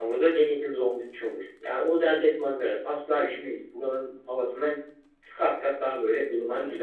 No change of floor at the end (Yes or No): No